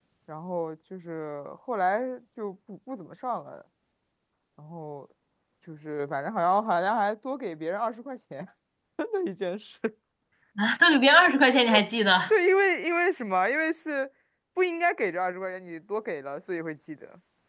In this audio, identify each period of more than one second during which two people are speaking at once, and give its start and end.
none

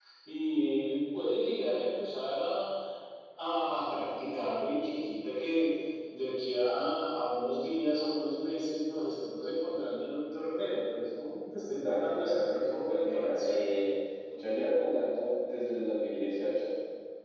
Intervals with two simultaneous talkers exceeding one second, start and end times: 11.7-13.6

